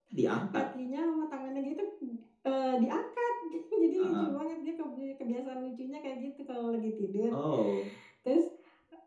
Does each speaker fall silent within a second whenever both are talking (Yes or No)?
Yes